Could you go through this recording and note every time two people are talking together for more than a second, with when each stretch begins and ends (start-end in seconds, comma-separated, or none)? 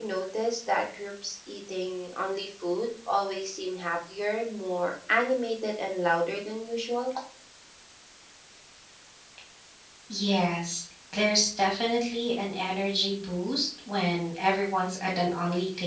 none